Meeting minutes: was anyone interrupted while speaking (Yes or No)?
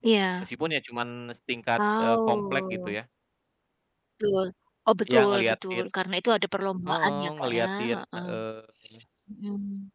Yes